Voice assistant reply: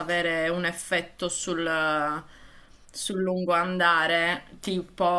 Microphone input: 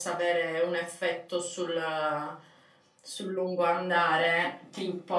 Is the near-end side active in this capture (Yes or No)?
No